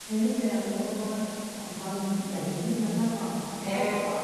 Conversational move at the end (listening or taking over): listening